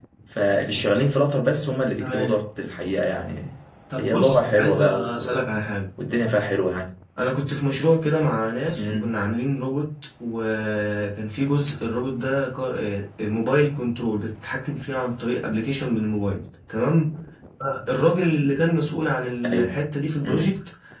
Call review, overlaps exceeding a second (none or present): present